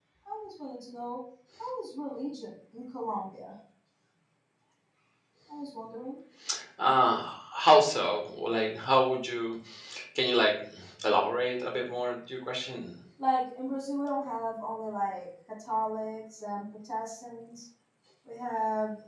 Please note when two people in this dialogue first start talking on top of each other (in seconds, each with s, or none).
none